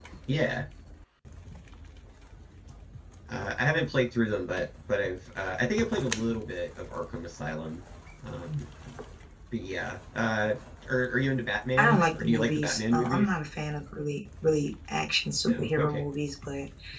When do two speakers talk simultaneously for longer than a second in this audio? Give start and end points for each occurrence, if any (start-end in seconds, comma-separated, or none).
11.8-13.3